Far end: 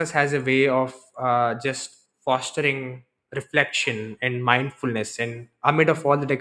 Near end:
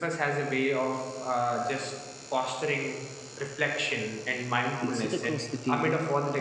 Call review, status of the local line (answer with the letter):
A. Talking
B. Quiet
A